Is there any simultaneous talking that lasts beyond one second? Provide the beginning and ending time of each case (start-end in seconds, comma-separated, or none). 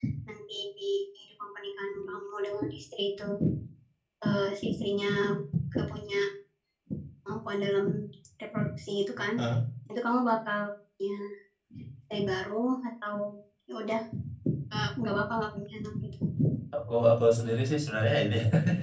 none